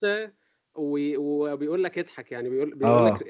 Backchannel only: Yes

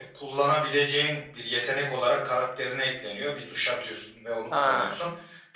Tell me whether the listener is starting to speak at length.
No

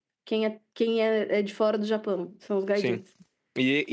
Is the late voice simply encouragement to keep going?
No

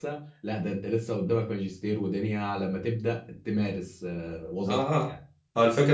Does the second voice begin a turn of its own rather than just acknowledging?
Yes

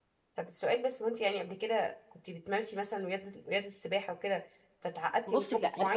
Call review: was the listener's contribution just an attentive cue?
No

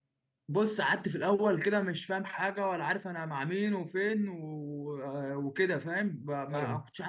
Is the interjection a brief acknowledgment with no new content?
Yes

